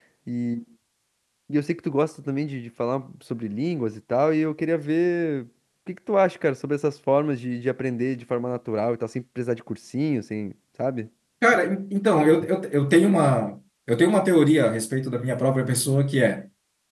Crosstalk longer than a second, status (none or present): none